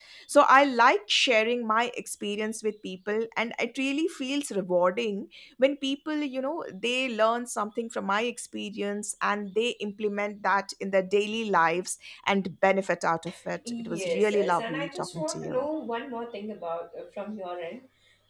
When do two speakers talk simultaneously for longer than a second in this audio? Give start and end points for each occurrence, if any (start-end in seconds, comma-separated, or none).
13.8-15.7